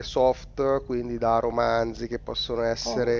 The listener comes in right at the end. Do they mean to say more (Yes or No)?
No